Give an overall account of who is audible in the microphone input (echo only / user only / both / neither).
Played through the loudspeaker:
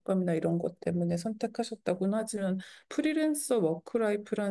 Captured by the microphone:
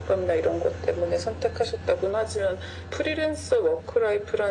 echo only